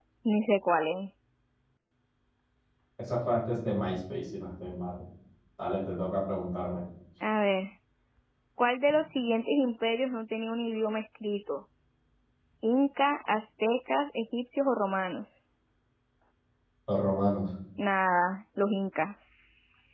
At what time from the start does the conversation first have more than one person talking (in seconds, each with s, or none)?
none